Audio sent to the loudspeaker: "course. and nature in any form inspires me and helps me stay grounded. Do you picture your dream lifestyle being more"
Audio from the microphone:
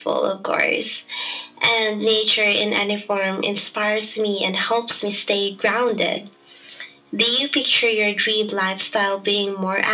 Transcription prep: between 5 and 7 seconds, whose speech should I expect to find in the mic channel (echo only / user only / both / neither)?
echo only